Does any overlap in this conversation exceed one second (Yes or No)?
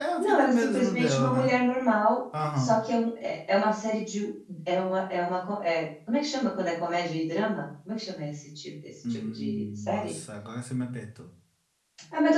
Yes